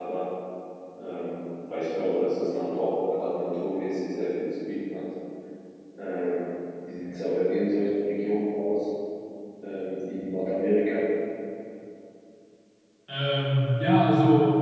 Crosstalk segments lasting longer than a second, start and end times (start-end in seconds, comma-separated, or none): none